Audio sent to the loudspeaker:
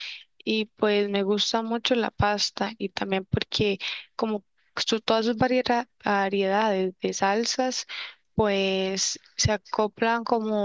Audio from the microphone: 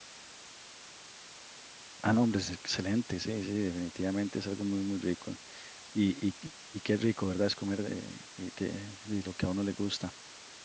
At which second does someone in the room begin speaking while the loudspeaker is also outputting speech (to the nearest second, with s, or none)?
2 s